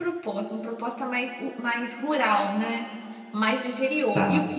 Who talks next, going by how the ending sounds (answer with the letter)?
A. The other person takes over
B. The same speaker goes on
B